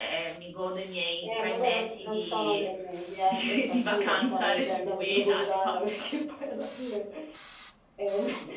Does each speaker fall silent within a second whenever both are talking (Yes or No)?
No